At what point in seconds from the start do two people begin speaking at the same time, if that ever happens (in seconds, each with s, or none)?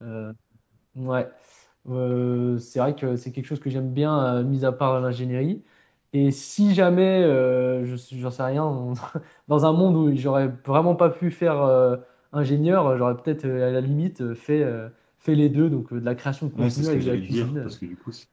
16.6 s